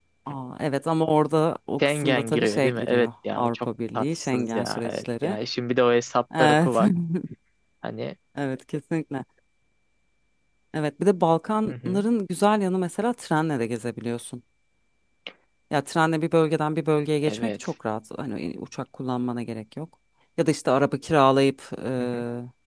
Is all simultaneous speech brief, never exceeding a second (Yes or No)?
No